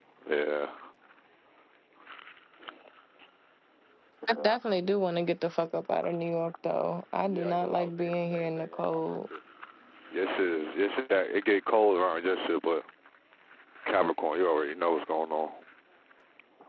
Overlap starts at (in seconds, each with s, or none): 7.3 s